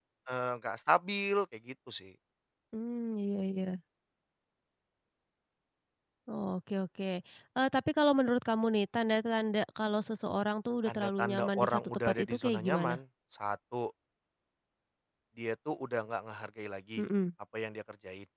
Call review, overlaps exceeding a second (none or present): present